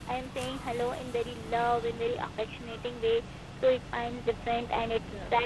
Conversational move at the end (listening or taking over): listening